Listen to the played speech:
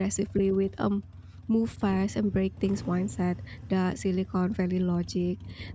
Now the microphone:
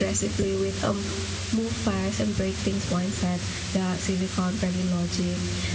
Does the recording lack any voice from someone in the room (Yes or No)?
Yes